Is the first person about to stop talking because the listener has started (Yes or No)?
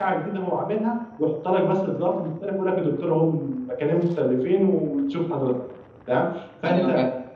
No